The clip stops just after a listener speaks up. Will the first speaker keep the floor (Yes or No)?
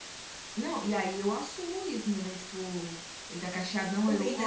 Yes